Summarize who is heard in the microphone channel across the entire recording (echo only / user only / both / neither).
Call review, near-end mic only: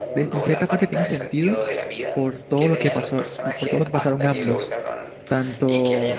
both